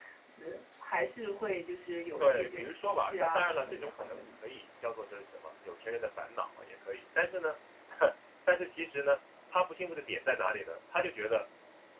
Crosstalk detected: Yes, from 2.2 s

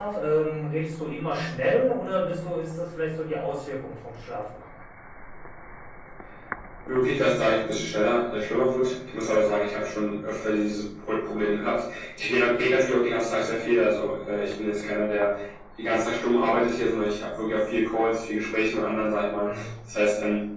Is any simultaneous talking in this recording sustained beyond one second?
No

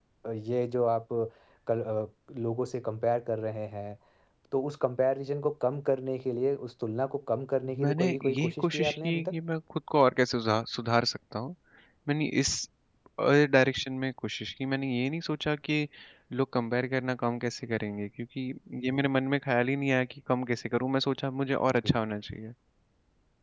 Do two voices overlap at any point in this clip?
Yes, from 7.8 s

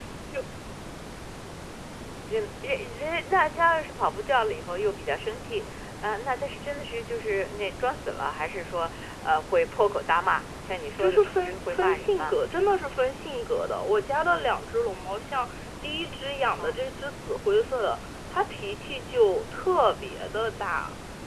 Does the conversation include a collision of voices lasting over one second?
Yes, from 11.0 s

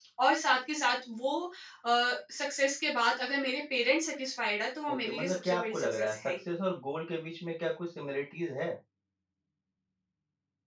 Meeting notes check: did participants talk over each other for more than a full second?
Yes, from 4.9 s

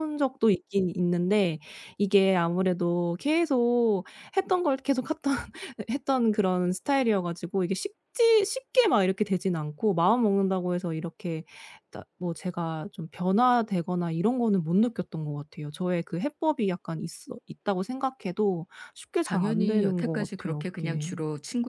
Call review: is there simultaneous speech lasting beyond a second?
Yes, from 19.3 s

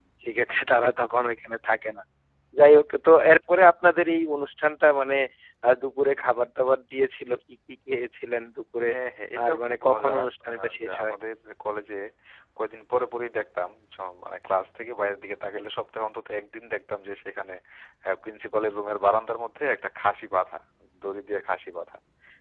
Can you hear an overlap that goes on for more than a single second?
Yes, from 9.4 s

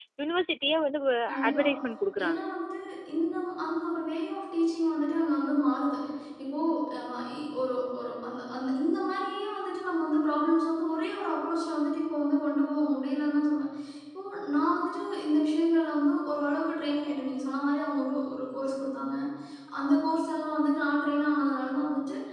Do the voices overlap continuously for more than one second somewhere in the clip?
No

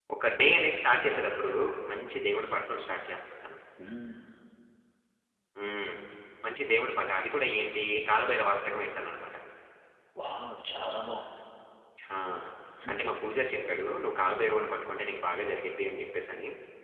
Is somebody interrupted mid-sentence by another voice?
No

